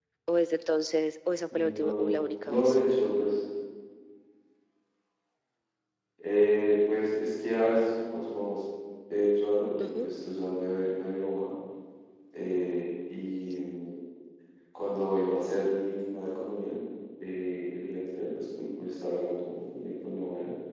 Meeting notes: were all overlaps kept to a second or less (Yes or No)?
No